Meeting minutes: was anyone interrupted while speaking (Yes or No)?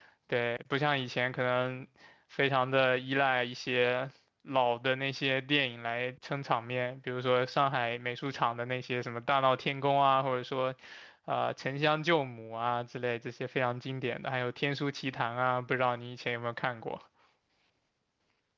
No